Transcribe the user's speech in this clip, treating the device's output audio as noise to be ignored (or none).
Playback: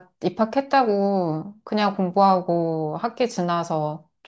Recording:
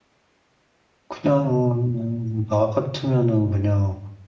그냥 나 같으면은 그냥